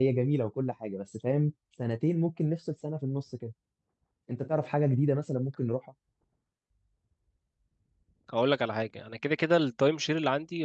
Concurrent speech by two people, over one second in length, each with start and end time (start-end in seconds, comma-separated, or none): none